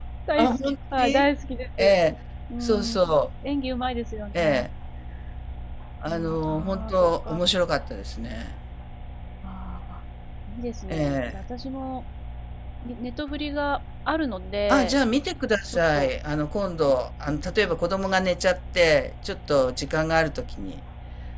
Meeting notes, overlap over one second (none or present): present